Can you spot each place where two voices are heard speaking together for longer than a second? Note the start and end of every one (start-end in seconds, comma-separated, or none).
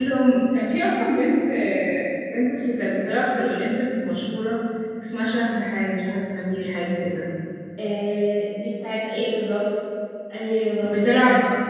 none